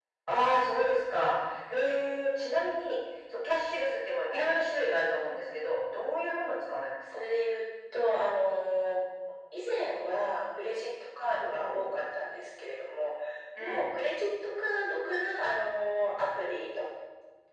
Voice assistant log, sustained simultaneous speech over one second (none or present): none